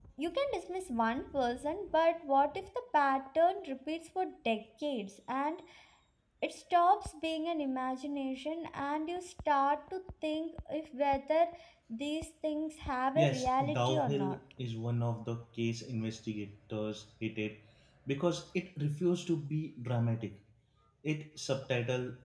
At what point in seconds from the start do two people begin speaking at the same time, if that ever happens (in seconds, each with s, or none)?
13.2 s